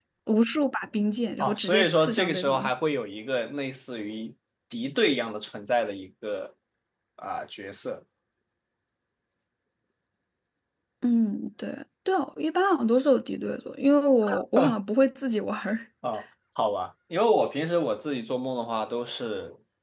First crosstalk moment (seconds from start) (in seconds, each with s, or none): 1.4 s